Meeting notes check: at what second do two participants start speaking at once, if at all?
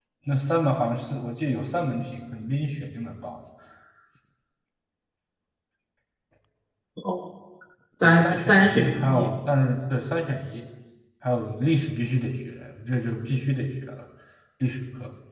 8.0 s

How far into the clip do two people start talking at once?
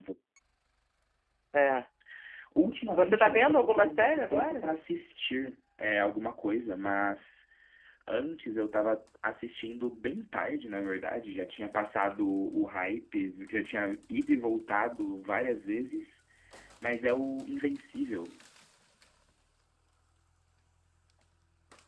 3.0 s

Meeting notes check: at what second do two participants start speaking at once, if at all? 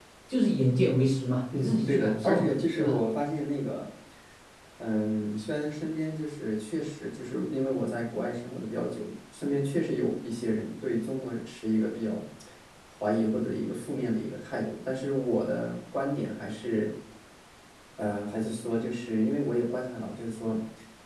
1.5 s

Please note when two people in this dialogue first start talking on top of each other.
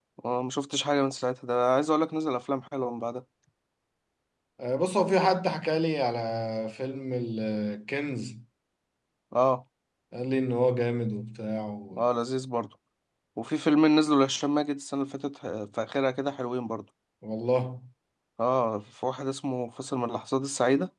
none

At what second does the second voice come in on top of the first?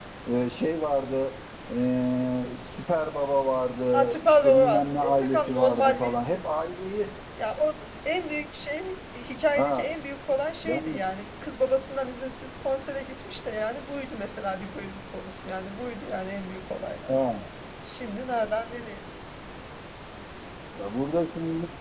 3.9 s

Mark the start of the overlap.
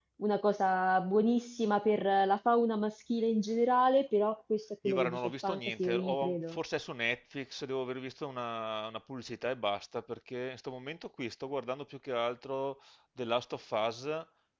4.8 s

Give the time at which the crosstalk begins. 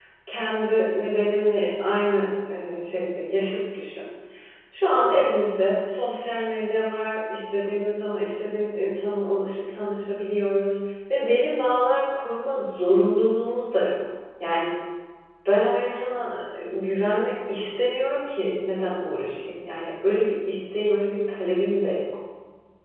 none

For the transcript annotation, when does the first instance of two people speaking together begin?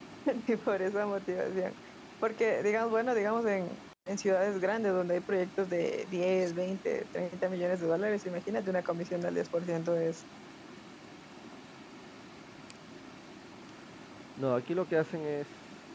none

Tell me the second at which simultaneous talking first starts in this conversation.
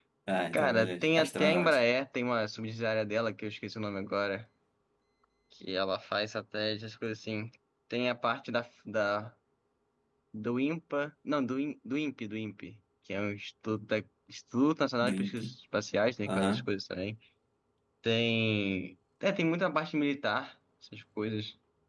0.5 s

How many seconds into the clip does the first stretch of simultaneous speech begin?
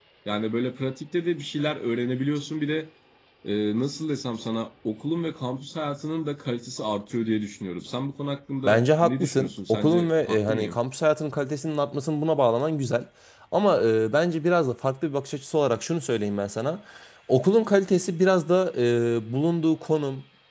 8.7 s

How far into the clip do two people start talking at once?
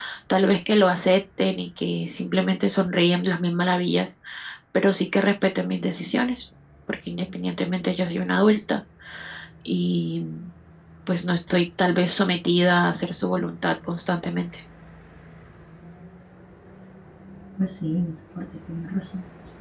none

